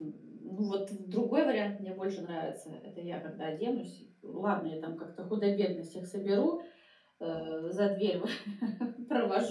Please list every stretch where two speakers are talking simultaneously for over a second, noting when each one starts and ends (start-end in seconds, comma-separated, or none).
none